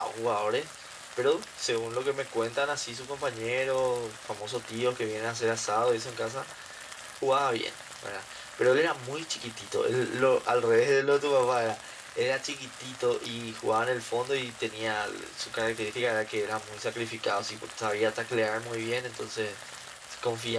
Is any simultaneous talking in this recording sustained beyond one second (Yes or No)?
No